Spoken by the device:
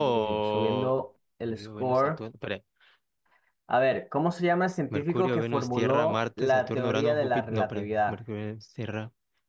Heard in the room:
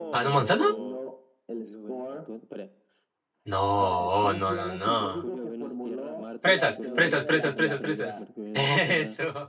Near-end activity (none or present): present